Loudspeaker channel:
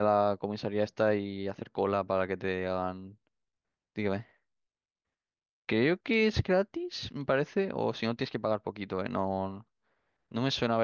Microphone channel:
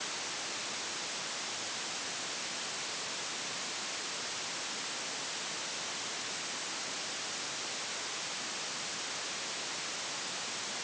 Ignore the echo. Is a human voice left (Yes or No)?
No